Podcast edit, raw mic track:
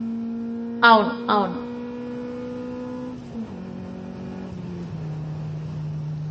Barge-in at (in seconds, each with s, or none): 0.9 s